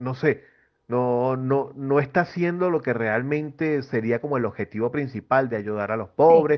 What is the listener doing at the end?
taking over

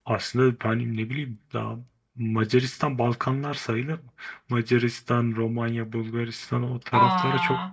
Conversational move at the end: listening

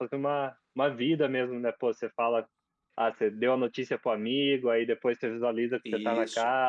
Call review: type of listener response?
listening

